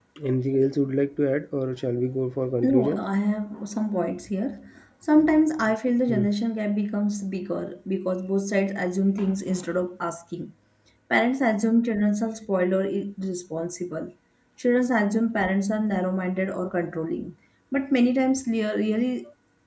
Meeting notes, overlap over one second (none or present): none